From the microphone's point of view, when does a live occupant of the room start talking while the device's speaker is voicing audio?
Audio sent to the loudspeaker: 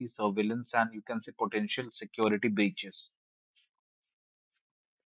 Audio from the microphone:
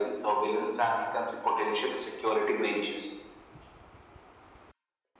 none

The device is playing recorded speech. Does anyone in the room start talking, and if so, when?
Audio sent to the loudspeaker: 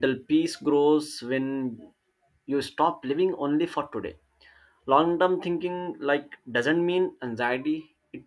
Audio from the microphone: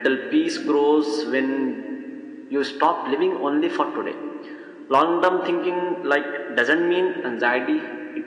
none

